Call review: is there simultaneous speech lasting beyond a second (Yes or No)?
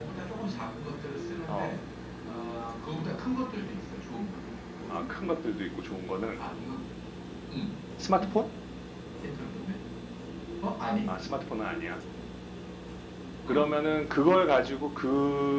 No